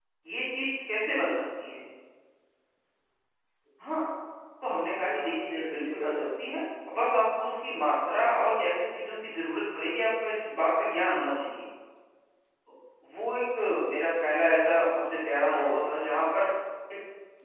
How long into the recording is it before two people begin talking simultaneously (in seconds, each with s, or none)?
5.0 s